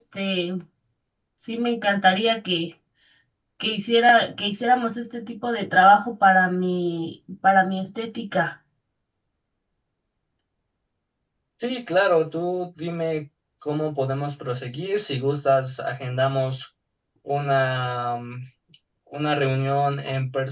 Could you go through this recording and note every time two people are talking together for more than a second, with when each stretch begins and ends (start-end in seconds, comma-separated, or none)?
none